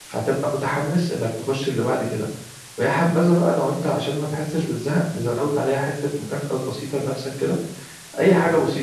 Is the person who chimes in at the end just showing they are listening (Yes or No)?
Yes